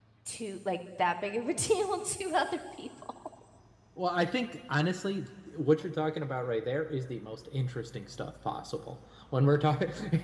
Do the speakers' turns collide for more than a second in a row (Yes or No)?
No